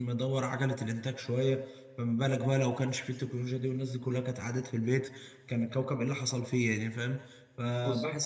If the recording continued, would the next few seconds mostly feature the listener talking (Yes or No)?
No